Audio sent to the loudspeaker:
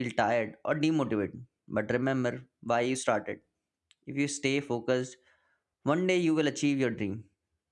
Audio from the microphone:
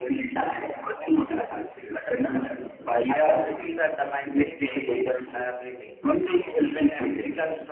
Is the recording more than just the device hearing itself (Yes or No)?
Yes